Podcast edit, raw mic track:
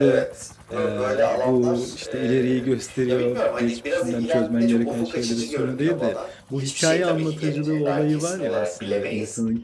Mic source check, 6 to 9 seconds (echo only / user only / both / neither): both